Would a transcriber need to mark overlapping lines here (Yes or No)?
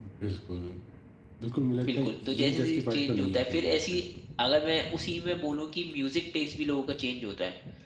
Yes